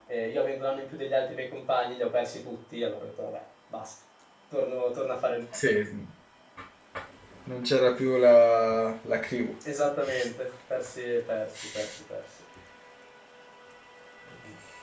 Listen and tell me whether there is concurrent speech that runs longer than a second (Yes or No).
No